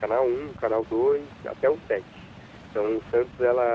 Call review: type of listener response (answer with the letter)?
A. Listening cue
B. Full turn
A